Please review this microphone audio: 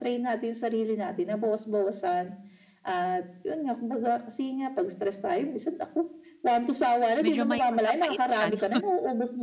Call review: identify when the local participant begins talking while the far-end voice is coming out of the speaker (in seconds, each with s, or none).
7.2 s